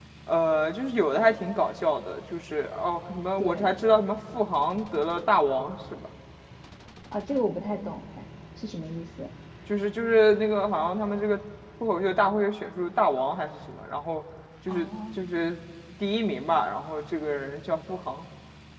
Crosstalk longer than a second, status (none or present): none